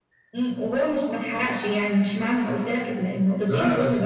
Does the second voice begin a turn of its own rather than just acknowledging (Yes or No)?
Yes